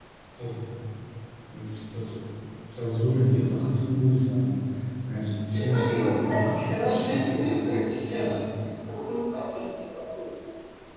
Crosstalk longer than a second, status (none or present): present